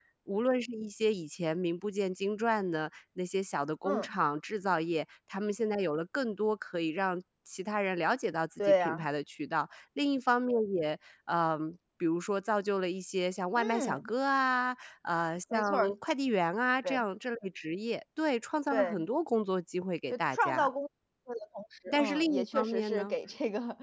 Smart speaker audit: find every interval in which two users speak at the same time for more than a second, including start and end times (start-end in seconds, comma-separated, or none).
21.9-23.2